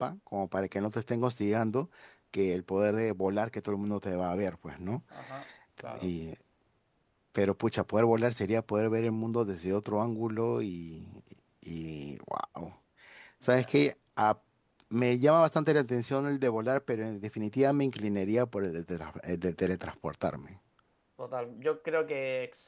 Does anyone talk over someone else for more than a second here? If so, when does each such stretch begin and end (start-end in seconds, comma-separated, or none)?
none